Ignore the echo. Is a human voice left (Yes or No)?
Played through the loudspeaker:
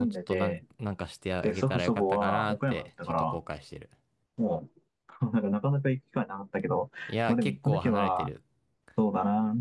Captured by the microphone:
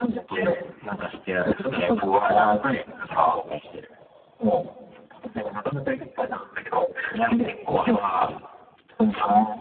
No